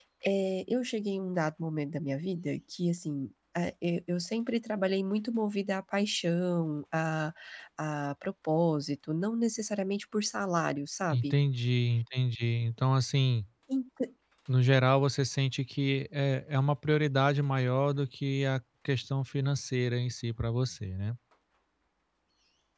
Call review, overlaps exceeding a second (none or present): none